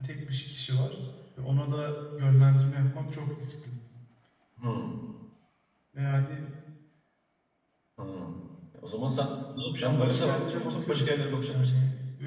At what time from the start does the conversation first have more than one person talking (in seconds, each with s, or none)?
9.8 s